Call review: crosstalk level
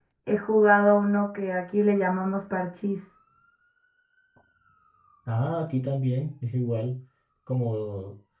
none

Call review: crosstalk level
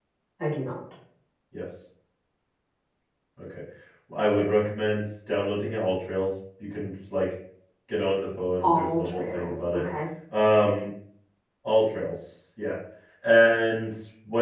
present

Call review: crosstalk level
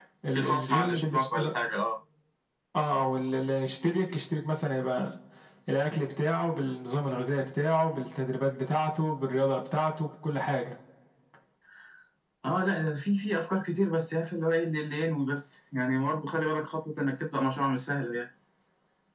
present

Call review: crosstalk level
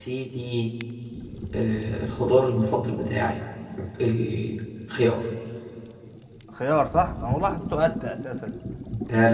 none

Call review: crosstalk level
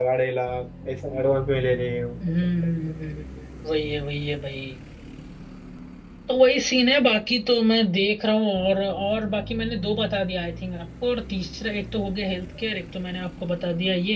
none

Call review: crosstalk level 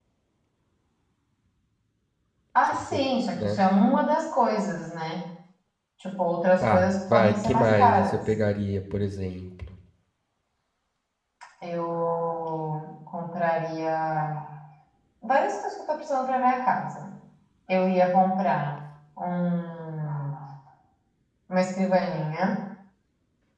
present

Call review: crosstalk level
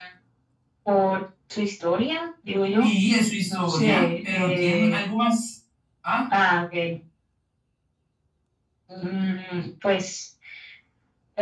present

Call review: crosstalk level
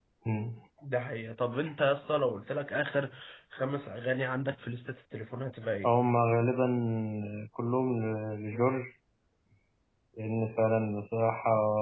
none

